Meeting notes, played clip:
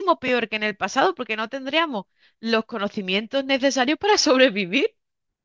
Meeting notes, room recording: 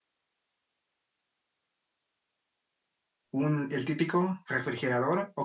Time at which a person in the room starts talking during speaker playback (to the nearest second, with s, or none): 3 s